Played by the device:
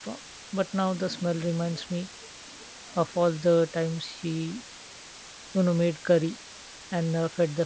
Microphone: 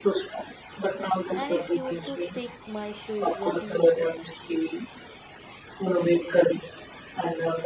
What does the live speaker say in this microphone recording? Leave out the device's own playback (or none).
and it used to stick my shoes. What do you say?